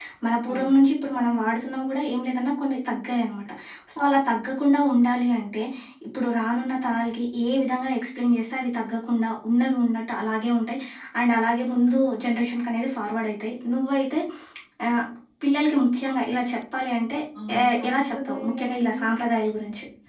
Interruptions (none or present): present